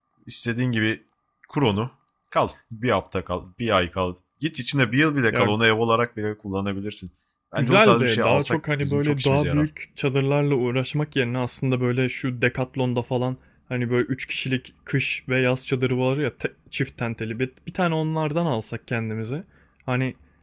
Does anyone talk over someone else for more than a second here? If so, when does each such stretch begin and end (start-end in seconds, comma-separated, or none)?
7.6-9.7